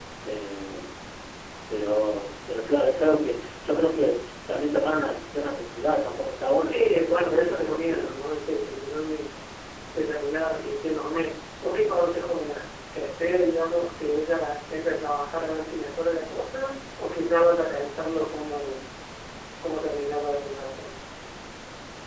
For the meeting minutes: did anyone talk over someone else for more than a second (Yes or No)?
Yes